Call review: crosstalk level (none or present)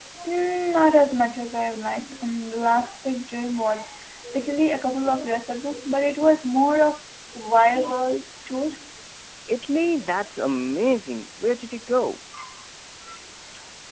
none